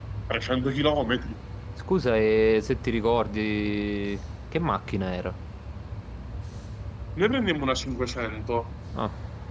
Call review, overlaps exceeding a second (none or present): none